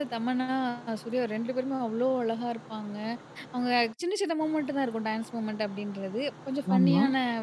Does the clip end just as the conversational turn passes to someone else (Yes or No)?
No